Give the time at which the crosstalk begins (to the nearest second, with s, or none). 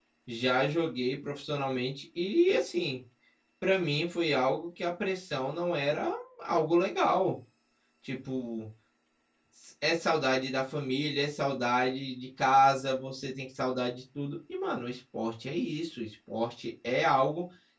none